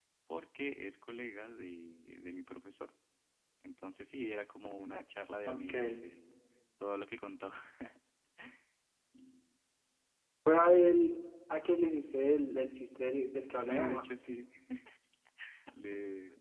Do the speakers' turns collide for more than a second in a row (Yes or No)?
No